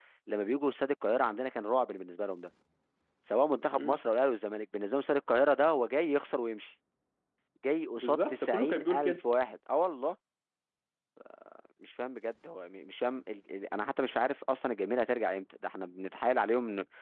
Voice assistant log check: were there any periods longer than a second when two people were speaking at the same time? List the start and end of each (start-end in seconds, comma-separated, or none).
8.0-9.2